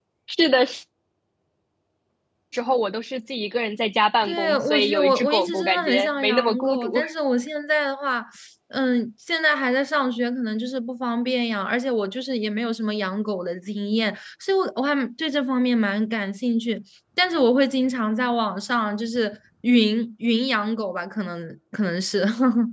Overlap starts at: 4 s

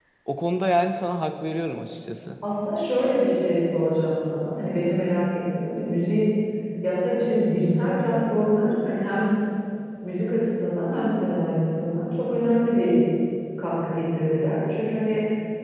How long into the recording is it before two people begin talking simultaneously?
none

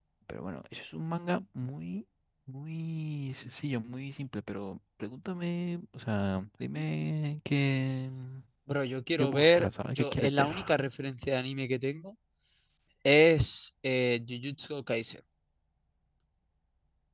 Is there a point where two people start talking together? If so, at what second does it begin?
9 s

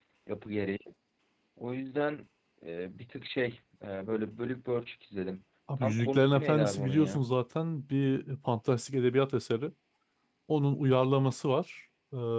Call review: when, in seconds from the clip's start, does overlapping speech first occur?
6 s

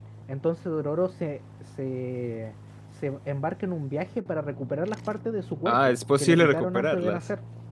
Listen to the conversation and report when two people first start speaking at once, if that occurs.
6 s

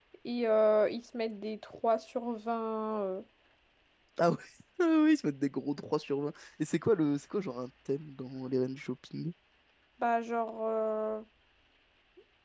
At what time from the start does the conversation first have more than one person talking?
none

